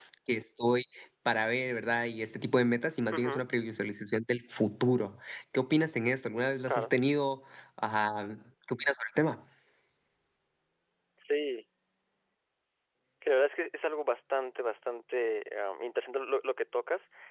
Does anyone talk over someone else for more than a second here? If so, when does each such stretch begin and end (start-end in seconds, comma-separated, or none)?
none